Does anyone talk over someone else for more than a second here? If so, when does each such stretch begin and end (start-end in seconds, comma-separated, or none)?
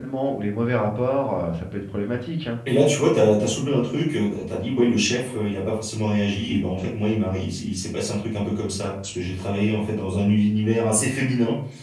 none